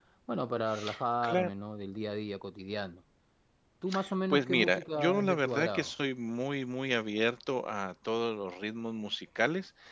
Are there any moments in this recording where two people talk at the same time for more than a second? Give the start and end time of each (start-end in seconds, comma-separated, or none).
4.3-5.9